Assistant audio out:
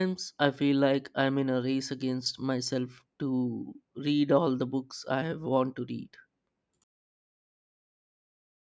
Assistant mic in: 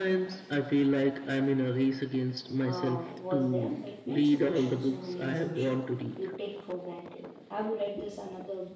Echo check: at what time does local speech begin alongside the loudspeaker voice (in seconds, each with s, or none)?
2.6 s